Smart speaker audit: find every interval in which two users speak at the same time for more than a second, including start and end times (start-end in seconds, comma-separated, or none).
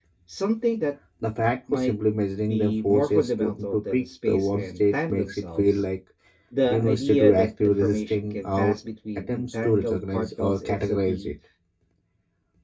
2.5-5.8, 6.7-8.8, 9.3-11.3